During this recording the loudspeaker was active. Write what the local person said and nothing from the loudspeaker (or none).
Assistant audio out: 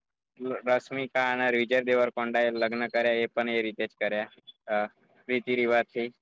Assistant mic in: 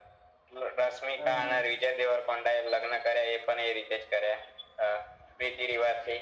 હા,